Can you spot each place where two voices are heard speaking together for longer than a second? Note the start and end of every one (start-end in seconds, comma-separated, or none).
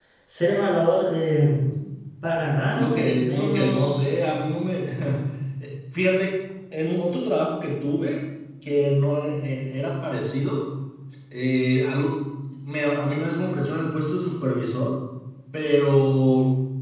2.7-4.1